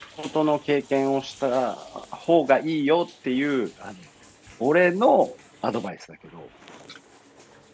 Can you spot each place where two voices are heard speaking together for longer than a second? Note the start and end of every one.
none

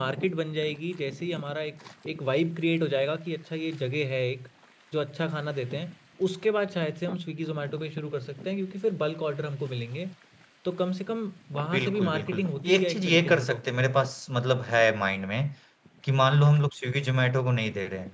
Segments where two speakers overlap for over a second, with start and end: 11.7-13.6

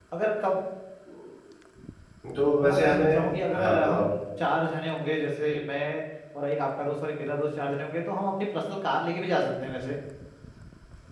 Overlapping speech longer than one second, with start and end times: 2.6-4.1

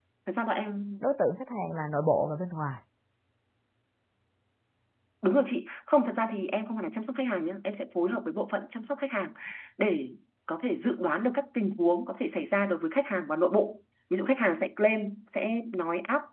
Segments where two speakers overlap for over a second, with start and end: none

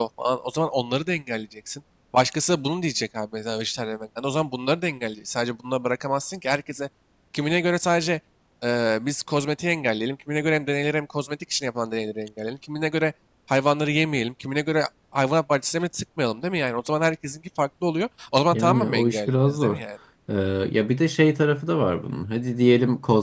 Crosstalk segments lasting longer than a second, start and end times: 18.5-19.8

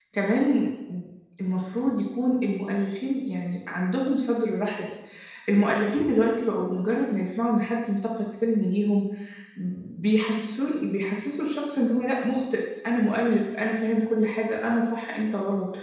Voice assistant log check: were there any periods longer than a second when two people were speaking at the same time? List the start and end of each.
none

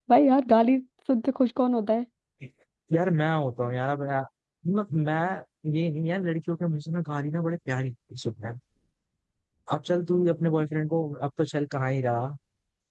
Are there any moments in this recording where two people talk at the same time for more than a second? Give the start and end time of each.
none

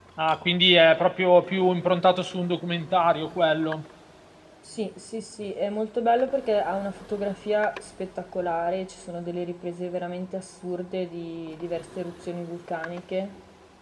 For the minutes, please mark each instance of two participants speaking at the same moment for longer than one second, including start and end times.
none

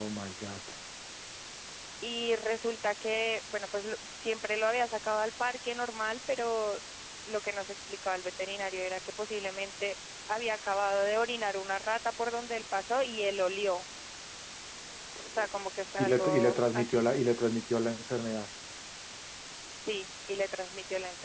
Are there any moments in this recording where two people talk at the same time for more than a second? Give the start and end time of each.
16.0-17.2

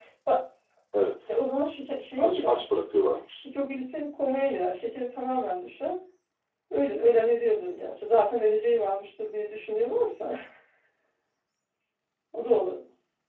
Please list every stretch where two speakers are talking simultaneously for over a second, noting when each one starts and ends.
none

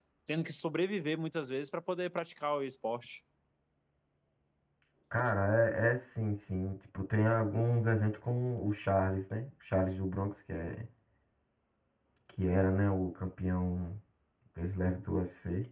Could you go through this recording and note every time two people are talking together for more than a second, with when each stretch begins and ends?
none

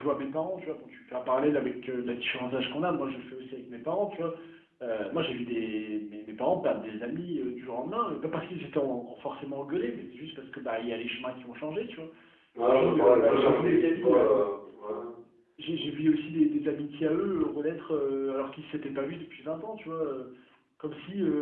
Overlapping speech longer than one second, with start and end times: 12.6-14.4

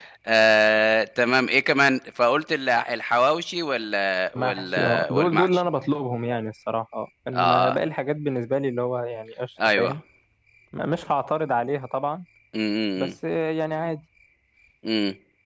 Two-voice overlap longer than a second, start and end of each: 4.3-5.7

